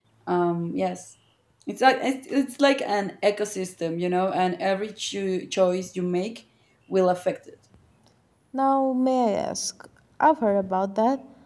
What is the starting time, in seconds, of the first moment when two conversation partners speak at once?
none

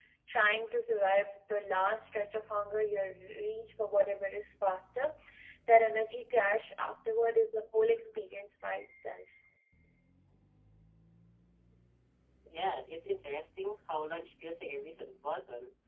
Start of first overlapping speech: none

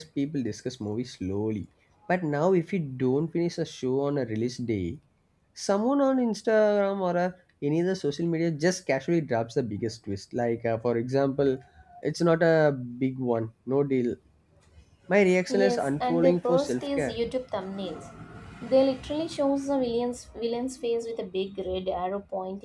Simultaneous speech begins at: 15.5 s

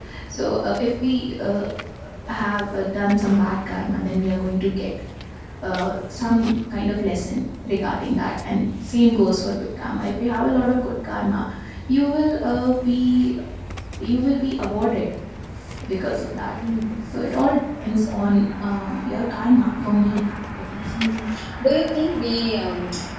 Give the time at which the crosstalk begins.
none

